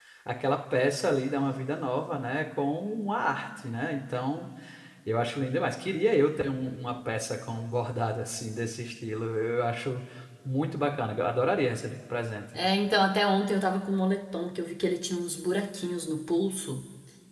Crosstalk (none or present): none